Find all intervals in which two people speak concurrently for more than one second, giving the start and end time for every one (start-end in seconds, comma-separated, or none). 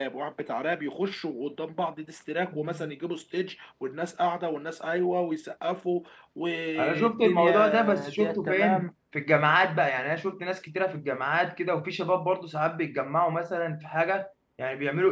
6.8-8.9